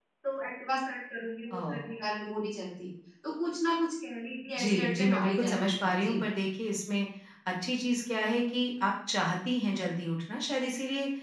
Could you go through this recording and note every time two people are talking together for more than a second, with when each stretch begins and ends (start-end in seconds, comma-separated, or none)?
4.6-6.2